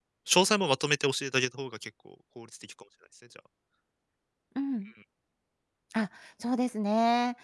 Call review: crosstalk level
none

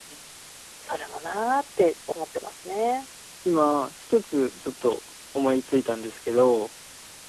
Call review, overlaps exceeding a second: none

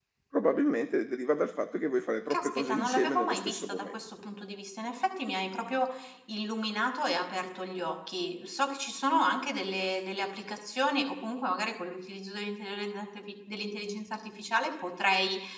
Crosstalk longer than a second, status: present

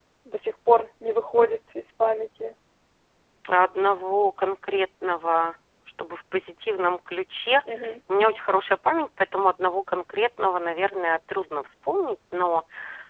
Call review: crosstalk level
none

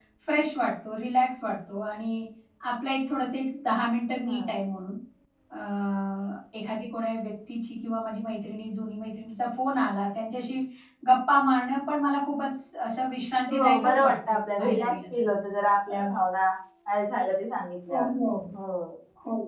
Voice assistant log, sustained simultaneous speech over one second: present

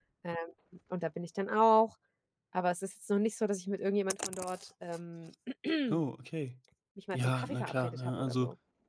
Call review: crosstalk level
present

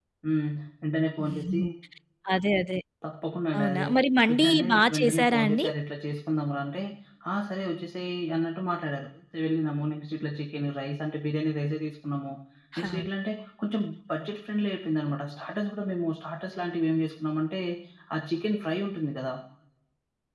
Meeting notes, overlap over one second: present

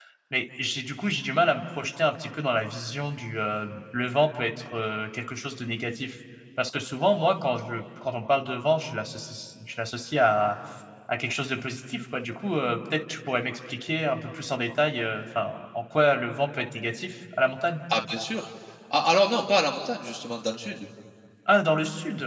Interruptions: none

